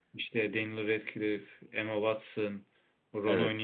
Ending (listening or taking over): listening